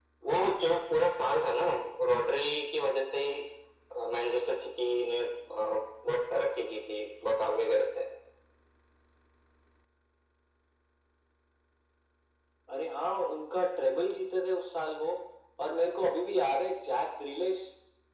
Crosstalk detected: No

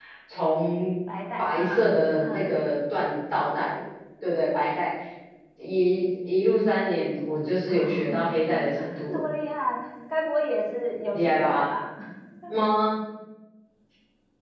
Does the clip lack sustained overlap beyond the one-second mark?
No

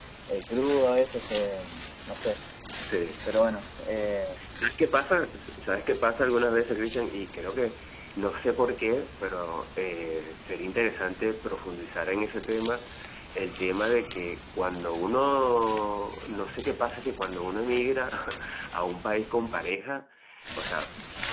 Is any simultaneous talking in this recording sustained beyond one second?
No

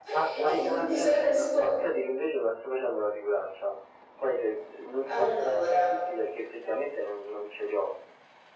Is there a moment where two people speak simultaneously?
Yes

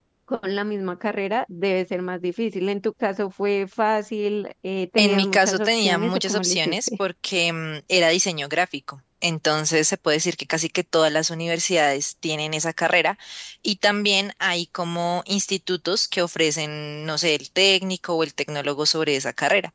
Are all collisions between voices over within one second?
No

